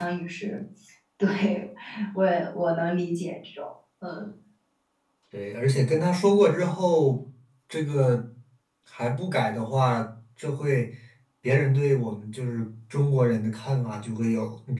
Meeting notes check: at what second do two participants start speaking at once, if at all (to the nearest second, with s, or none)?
none